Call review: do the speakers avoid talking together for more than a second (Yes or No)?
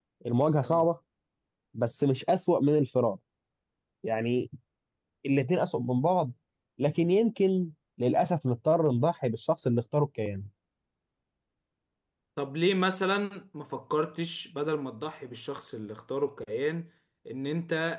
Yes